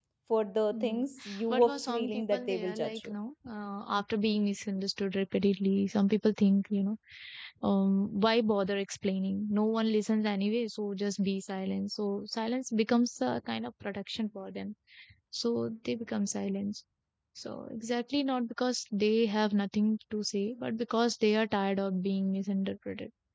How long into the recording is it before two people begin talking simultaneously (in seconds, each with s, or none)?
0.7 s